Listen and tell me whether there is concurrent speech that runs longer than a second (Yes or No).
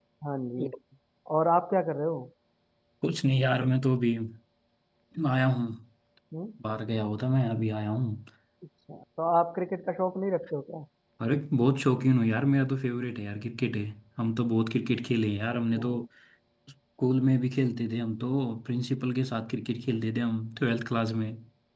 No